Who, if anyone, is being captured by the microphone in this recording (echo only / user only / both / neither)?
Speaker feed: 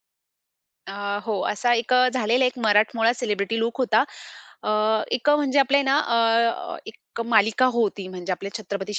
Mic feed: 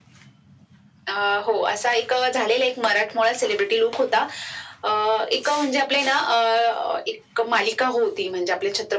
echo only